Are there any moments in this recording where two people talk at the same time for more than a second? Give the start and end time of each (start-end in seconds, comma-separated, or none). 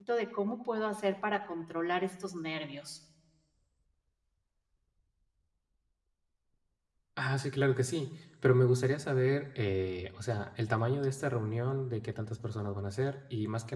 none